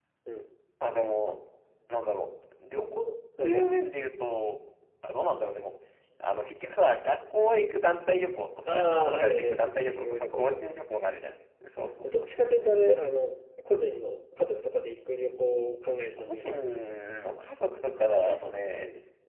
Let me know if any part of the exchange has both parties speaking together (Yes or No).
Yes